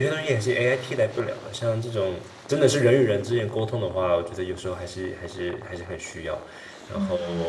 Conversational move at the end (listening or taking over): listening